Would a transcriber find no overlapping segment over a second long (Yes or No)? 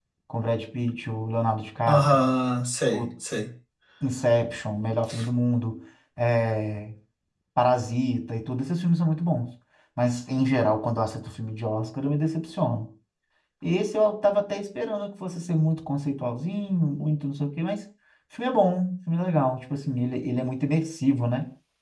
Yes